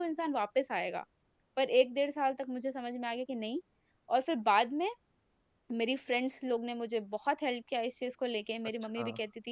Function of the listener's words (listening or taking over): listening